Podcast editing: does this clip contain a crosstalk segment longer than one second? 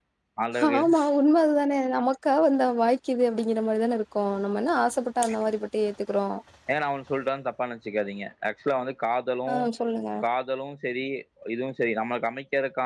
No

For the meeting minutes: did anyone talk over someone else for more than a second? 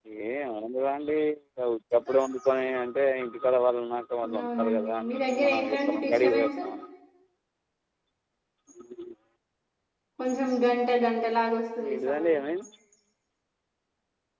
Yes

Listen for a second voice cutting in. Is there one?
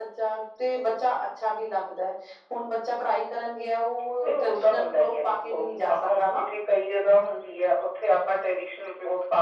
Yes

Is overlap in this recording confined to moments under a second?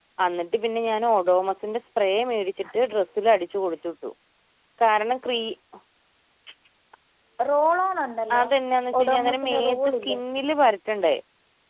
No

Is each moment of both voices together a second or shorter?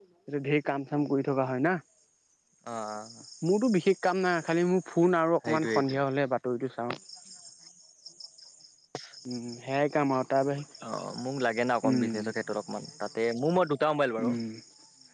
Yes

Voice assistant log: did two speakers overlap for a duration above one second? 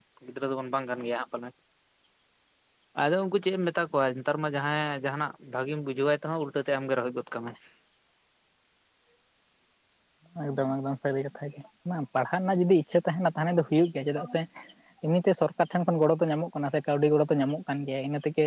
No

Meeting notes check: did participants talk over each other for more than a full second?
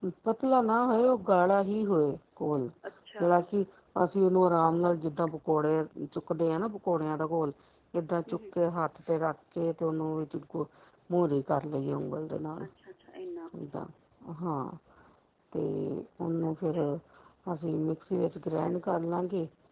No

